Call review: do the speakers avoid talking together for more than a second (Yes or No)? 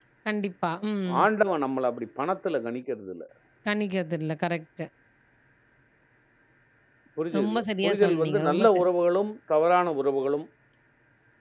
No